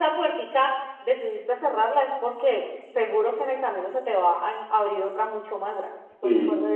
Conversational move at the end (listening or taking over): taking over